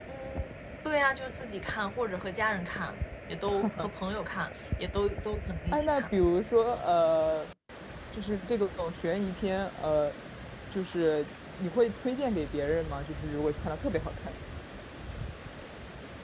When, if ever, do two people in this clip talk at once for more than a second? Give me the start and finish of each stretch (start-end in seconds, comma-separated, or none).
none